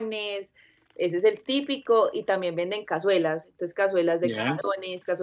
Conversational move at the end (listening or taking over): listening